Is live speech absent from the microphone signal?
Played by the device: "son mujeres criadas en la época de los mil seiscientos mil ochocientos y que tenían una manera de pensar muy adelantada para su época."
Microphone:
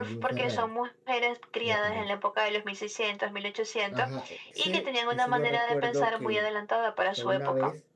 No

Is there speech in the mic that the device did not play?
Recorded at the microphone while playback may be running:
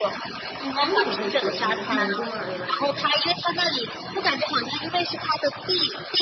Yes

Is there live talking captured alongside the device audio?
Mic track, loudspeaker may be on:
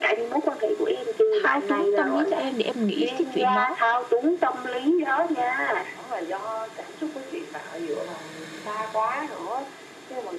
Yes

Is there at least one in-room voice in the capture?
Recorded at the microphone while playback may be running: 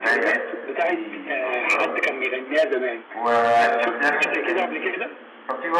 Yes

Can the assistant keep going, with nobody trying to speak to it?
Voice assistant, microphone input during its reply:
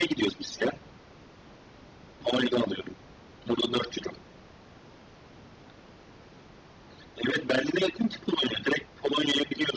Yes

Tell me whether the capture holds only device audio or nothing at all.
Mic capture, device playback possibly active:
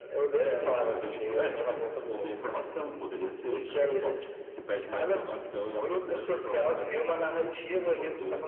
No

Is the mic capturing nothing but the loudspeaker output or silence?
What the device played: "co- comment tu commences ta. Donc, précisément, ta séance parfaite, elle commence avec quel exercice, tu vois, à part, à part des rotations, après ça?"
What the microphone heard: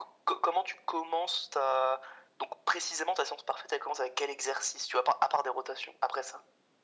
Yes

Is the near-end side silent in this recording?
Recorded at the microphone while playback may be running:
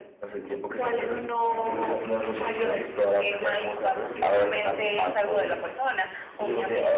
Yes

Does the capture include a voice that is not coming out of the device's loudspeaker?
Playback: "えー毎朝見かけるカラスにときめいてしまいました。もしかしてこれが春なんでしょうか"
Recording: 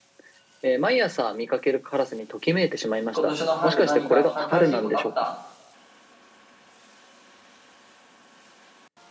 Yes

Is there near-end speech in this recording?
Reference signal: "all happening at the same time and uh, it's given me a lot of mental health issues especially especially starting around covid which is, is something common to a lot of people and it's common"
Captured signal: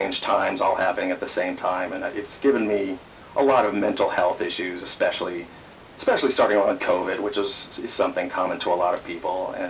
No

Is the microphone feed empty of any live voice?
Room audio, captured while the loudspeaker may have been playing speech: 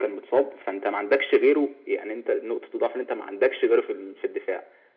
Yes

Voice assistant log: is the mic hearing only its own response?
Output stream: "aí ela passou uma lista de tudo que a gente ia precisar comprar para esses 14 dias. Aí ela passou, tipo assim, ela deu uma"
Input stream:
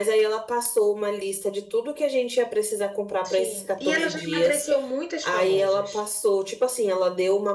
No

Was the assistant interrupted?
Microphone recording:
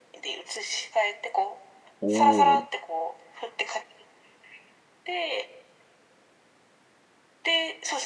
Yes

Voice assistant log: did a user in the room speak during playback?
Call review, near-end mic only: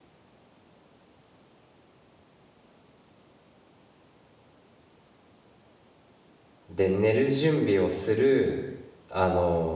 Yes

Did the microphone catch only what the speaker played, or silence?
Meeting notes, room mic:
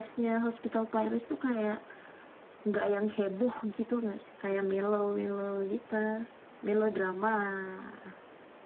Yes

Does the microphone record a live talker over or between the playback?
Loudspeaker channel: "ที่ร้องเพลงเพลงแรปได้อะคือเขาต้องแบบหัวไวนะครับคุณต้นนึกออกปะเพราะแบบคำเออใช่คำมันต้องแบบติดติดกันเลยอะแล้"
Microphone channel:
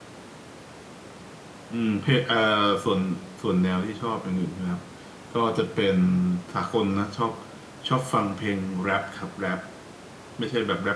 Yes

